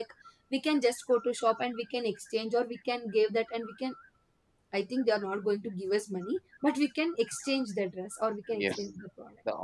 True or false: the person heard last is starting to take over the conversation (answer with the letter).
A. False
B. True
B